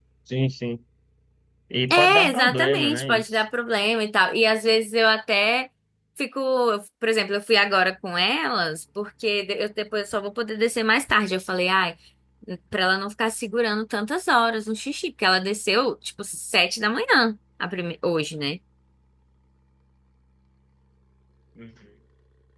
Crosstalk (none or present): present